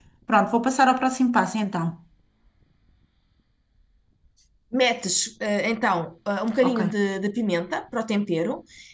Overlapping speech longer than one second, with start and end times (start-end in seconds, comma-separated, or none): none